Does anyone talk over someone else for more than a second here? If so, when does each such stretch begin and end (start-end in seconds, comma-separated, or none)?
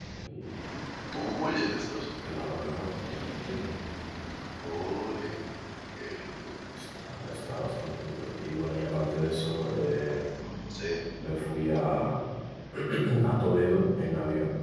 none